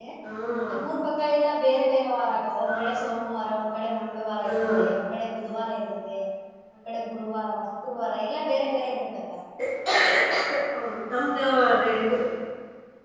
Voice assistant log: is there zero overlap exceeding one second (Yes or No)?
Yes